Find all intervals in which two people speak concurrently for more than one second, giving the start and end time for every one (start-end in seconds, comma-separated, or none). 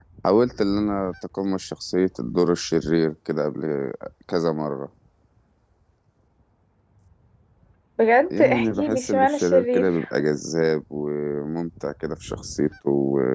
8.3-10.0